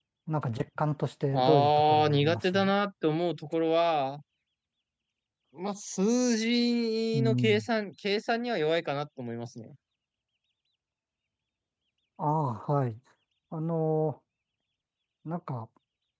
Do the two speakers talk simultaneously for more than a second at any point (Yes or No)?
Yes